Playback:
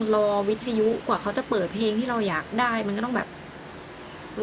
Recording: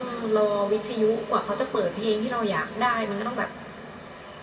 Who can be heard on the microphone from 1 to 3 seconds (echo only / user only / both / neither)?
echo only